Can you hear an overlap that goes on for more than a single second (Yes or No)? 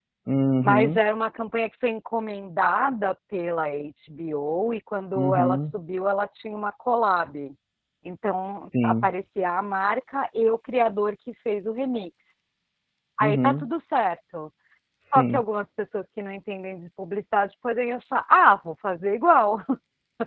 No